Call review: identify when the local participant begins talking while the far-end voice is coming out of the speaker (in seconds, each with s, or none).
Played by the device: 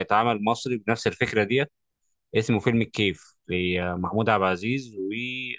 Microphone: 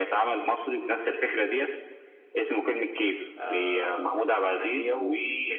3.4 s